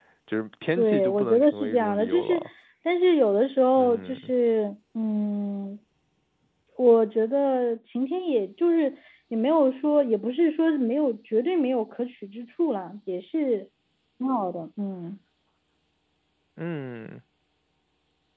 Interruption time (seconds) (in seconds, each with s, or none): 0.8 s